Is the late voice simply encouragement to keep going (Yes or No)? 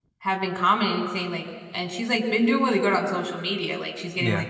Yes